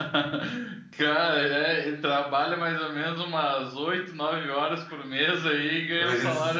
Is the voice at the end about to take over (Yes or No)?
Yes